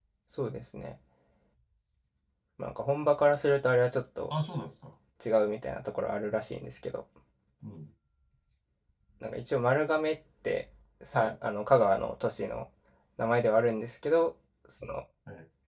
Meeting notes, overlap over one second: none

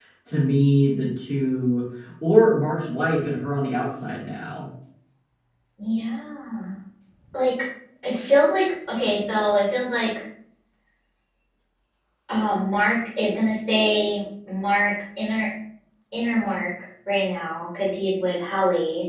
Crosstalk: none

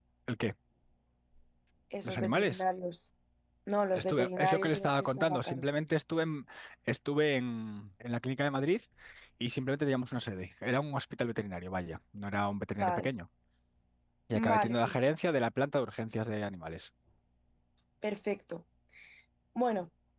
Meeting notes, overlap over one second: present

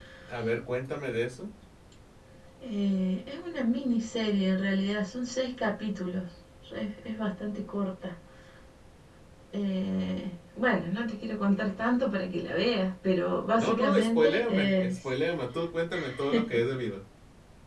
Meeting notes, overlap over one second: present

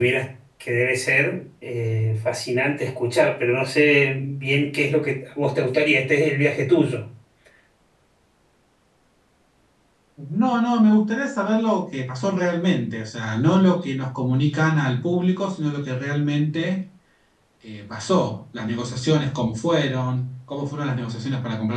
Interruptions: none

